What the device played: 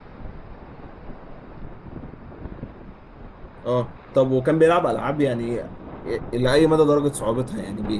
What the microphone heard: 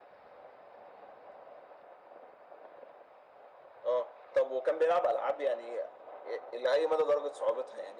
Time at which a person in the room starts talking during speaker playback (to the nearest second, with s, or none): none